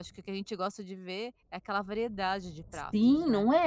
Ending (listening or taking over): taking over